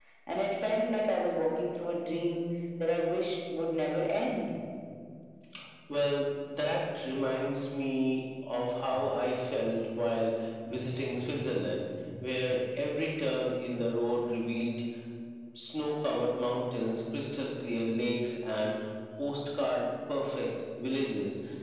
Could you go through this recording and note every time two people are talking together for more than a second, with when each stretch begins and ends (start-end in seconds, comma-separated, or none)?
none